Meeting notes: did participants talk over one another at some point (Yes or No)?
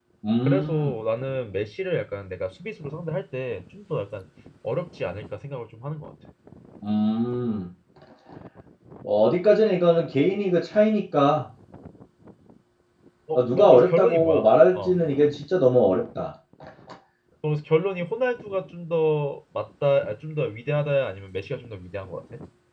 Yes